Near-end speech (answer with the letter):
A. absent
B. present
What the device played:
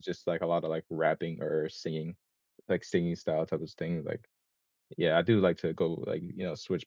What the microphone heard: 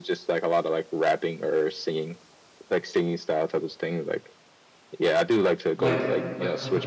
B